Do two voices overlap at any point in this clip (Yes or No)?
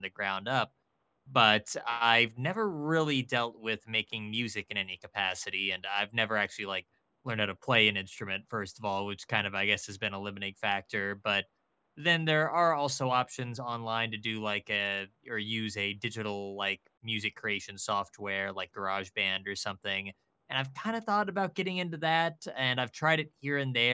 No